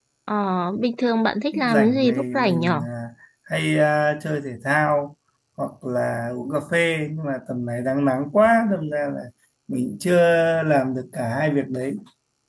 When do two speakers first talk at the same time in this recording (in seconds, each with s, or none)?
1.5 s